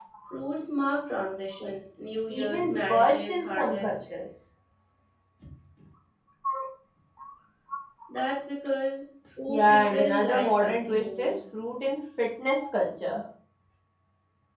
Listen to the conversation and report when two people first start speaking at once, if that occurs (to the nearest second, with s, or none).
2 s